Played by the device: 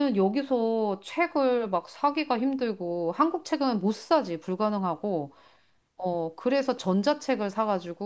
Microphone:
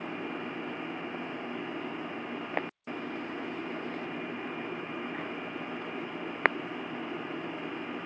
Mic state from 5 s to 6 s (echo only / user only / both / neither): neither